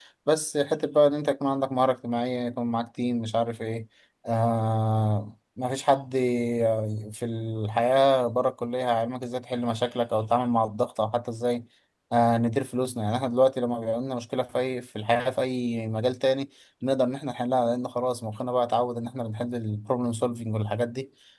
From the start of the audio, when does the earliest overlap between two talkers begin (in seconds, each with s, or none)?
none